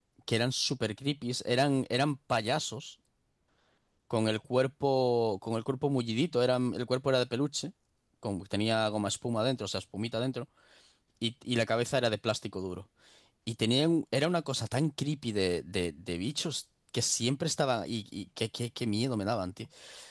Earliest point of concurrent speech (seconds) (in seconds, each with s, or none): none